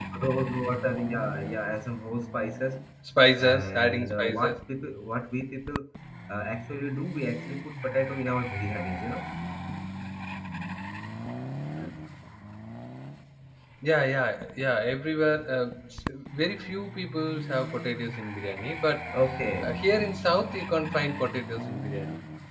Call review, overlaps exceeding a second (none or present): present